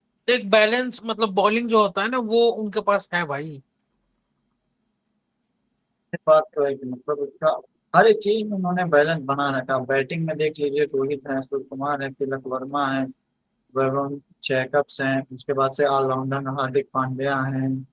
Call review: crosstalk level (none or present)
none